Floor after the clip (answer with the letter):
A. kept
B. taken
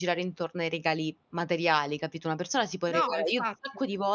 A